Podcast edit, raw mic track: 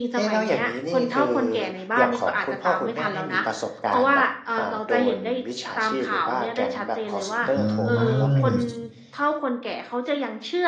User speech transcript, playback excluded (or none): อืม